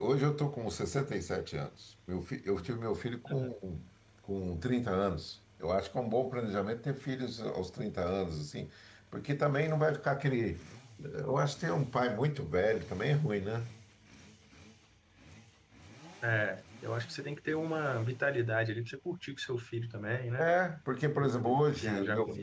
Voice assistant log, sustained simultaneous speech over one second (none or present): present